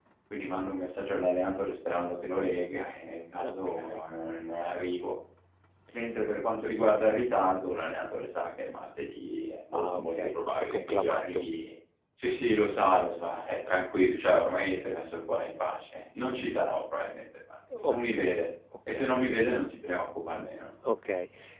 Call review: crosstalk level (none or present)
present